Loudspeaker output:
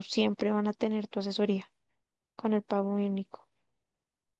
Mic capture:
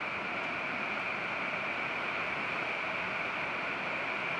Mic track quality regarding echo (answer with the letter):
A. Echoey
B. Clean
B